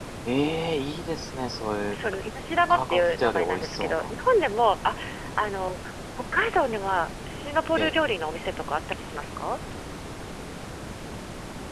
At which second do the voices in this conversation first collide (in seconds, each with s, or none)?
2.7 s